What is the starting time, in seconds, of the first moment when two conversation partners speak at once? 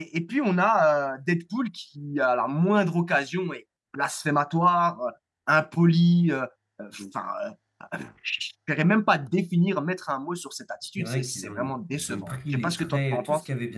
11.0 s

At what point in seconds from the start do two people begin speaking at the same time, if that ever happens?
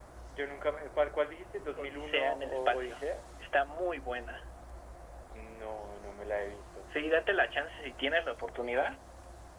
1.8 s

